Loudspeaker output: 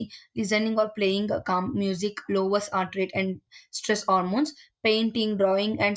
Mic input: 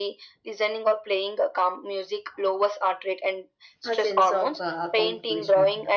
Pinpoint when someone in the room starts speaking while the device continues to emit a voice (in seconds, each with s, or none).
3.8 s